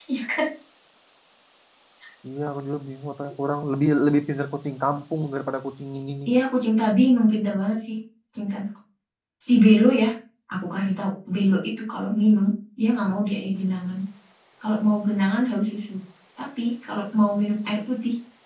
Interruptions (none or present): none